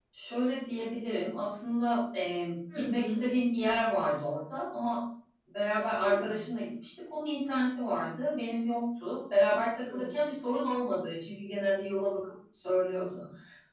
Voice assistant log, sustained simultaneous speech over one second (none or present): none